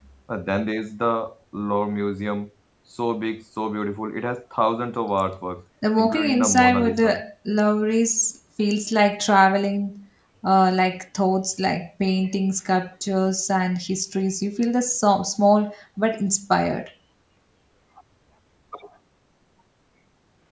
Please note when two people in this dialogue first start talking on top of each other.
5.8 s

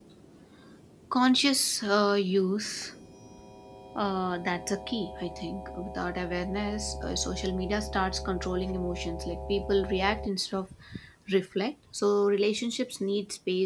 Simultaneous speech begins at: none

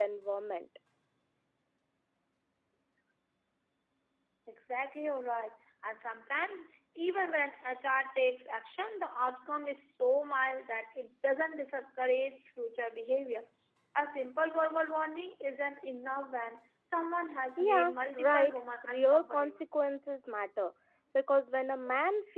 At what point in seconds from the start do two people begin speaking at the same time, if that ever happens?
17.6 s

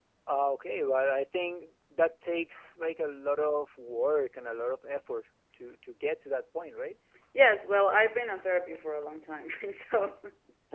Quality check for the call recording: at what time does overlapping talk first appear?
none

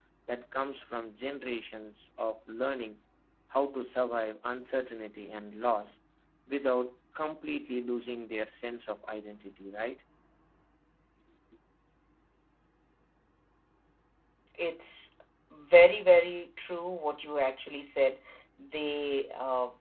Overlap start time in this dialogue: none

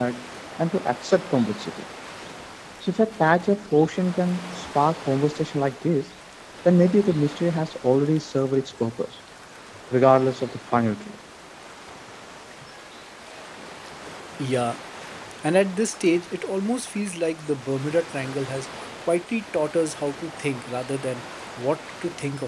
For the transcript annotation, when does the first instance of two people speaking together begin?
none

